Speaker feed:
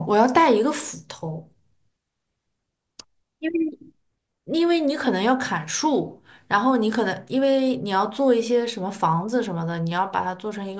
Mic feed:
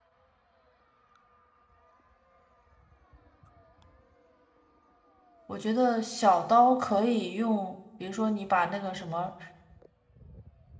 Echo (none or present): none